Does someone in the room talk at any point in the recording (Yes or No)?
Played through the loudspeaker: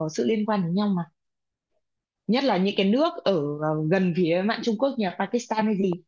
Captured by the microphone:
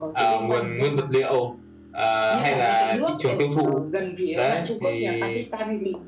Yes